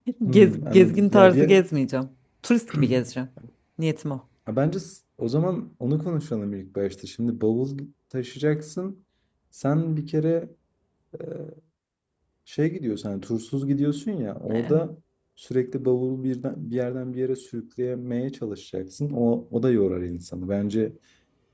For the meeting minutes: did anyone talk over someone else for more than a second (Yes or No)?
Yes